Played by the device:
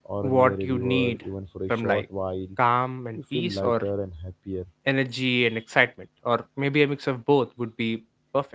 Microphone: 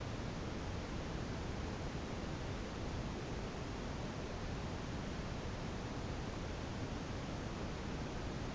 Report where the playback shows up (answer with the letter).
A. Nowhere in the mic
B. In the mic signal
A